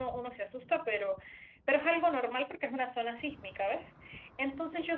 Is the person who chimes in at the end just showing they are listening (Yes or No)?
Yes